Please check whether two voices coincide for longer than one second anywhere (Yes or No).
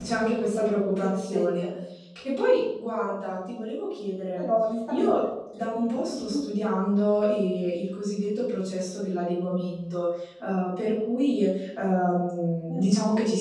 Yes